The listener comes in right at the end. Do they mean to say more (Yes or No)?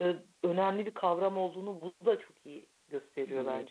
Yes